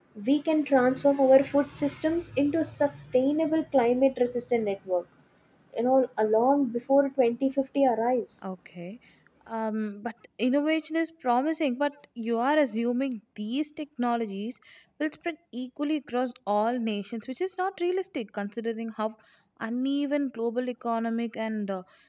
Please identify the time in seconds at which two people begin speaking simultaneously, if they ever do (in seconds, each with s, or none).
none